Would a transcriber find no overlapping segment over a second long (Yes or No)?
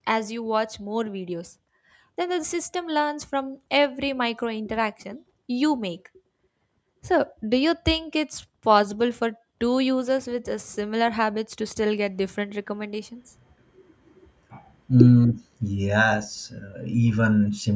Yes